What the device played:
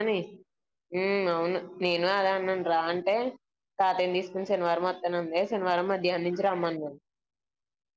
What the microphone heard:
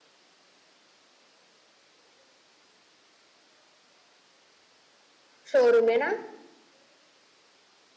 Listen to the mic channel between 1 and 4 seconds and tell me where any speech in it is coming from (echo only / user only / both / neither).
neither